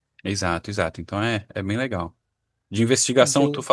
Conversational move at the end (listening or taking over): listening